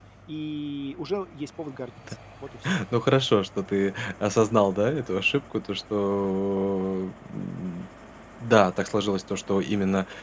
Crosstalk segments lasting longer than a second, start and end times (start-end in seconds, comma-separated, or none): none